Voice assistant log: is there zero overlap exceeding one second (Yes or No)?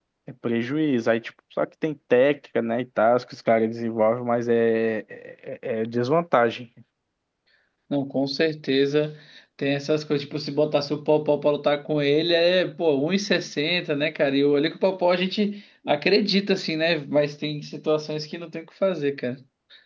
Yes